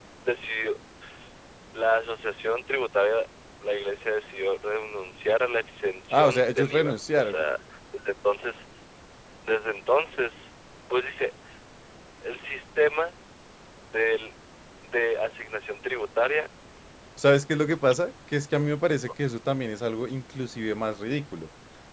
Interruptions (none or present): present